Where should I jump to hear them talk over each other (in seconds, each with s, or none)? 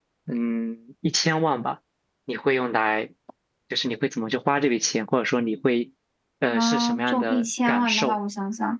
6.5 s